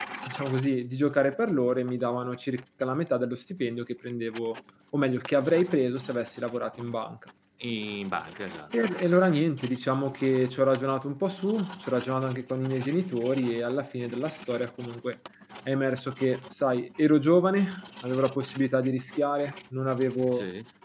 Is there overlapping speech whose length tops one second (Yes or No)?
No